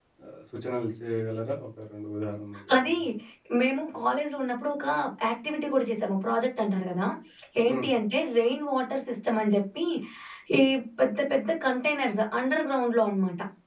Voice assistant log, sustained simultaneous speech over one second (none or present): none